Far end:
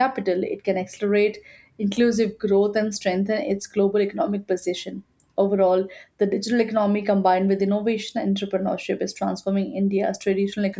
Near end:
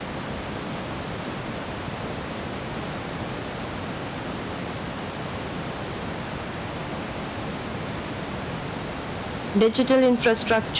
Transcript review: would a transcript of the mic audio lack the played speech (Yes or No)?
Yes